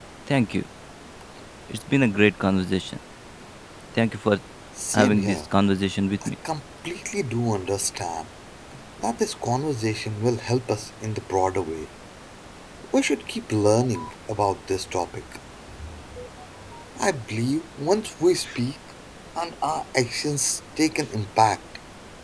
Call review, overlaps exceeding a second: none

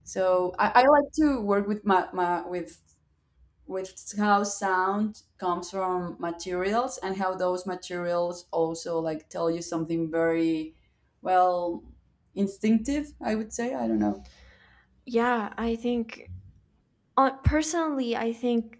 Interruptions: none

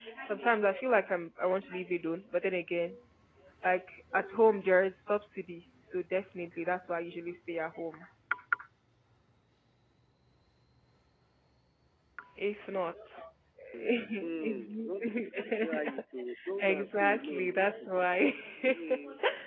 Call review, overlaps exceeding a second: present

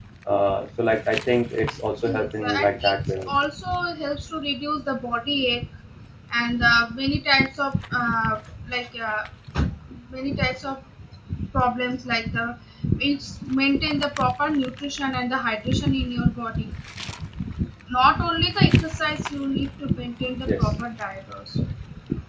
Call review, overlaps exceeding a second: present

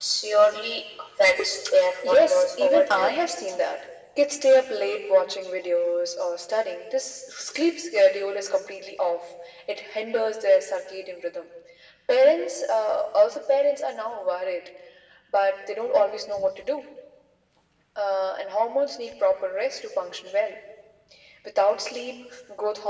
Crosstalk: present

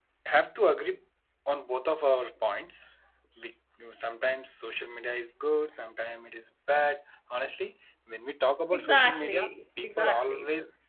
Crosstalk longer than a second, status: present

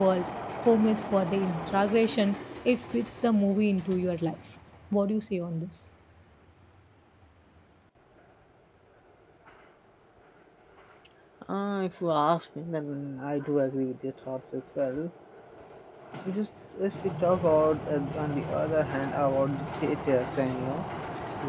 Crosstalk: none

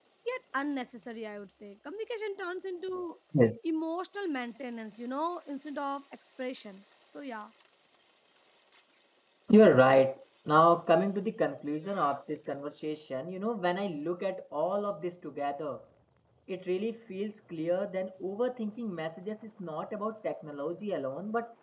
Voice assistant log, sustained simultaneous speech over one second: none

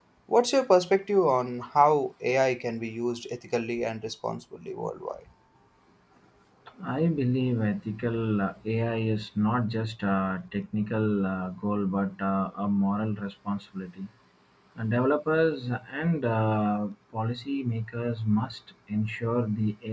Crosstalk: none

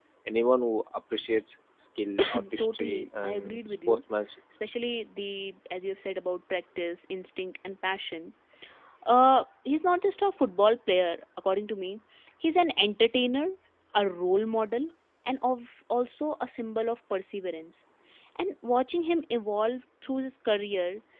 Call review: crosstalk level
present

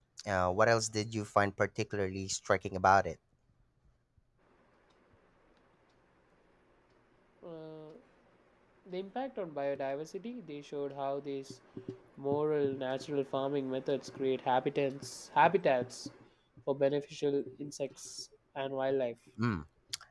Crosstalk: none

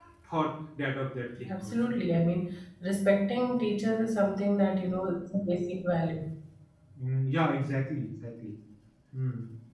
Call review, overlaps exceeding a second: none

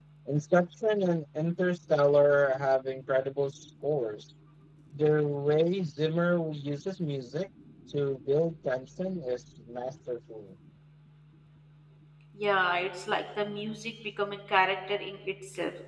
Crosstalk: none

